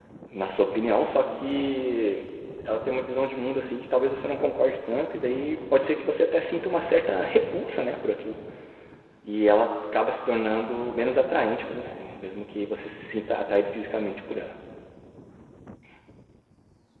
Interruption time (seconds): none

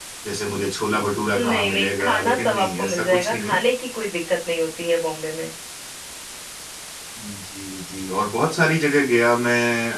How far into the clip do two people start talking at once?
1.3 s

